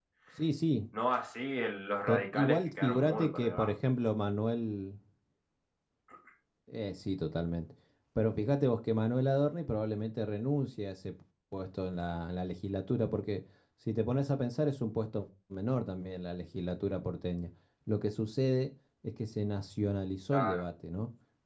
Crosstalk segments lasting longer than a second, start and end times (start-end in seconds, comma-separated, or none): 2.1-3.7